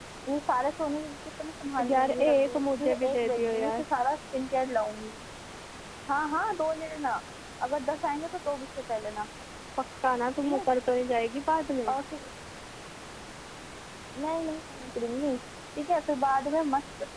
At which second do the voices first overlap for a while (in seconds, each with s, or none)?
1.8 s